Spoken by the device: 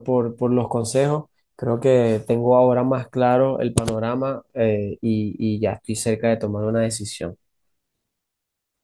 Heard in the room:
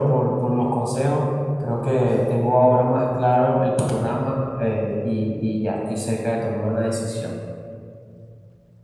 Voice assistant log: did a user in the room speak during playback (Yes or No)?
No